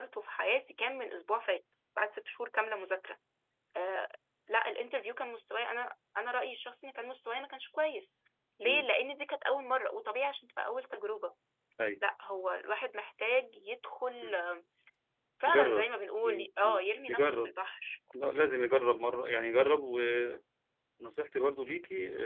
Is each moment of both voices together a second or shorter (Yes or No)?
No